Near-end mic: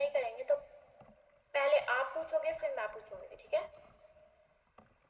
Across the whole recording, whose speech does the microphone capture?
echo only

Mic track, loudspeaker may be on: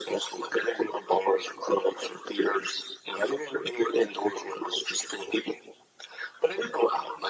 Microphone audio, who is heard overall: echo only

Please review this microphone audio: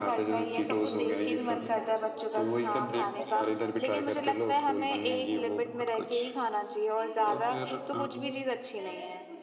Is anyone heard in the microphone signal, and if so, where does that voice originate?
both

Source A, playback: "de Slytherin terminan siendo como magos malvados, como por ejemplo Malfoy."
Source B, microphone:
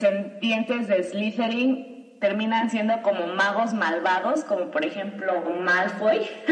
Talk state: echo only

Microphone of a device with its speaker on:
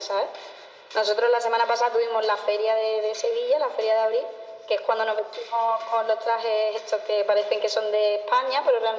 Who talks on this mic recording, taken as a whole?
echo only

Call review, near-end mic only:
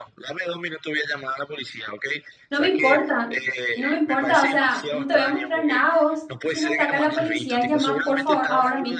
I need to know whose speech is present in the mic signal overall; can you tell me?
both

